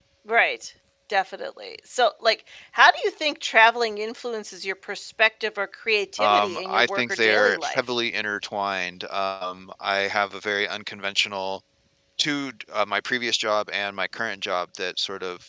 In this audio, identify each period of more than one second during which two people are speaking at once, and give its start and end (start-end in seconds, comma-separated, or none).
6.2-7.8